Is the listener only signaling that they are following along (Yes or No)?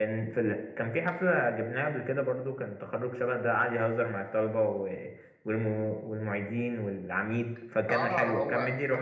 No